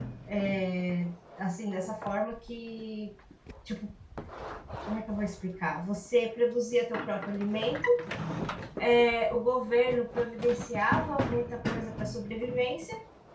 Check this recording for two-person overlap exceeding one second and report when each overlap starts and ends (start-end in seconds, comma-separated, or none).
none